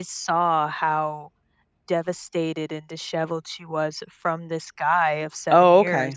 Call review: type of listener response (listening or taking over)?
listening